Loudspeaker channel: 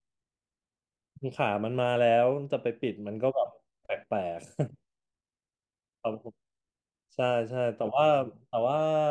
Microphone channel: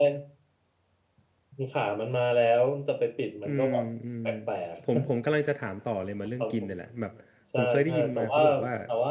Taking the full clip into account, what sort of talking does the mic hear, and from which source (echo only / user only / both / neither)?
both